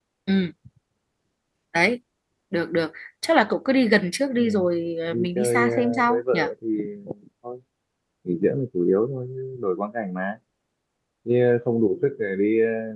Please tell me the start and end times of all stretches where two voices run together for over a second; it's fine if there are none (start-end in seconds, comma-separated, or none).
5.1-6.4